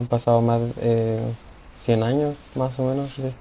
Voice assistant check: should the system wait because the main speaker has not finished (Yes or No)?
No